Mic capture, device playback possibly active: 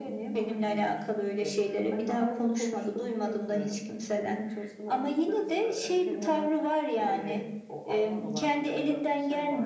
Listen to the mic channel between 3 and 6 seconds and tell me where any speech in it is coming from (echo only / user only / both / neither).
echo only